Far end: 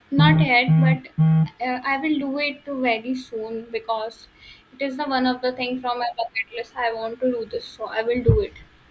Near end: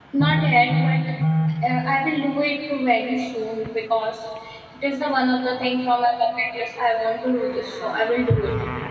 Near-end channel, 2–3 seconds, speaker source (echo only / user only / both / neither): echo only